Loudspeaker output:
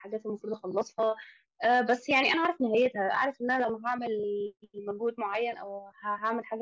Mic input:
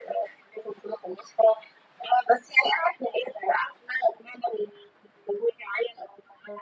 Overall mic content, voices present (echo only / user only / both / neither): echo only